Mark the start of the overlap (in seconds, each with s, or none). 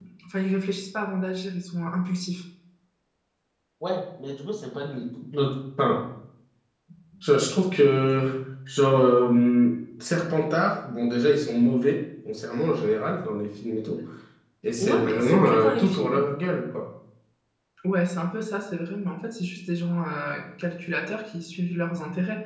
14.8 s